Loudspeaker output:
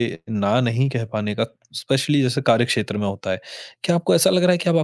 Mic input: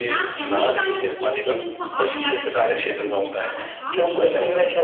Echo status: present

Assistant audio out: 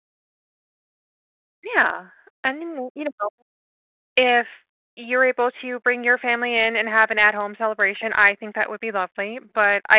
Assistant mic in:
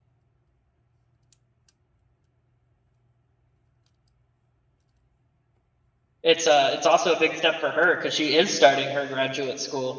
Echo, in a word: none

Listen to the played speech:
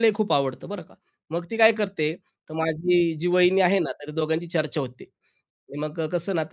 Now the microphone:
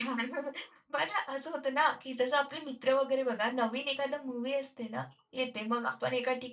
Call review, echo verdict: none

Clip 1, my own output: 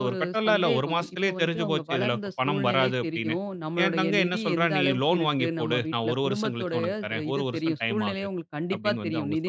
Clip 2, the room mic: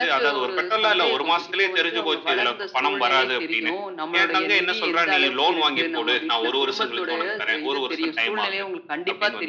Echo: present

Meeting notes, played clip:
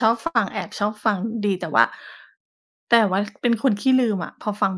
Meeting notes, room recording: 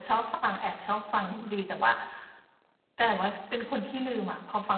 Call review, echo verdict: present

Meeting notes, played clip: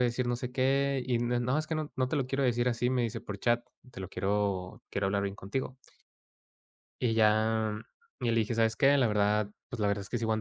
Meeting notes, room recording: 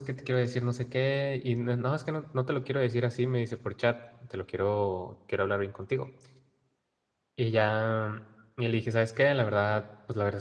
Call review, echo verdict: present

